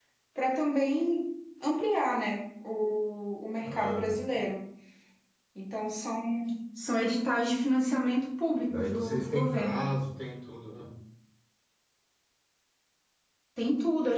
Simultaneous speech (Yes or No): Yes